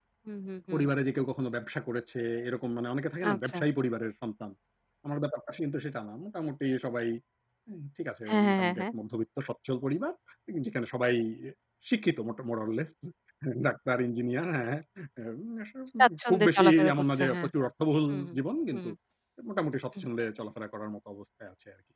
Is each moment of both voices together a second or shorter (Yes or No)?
No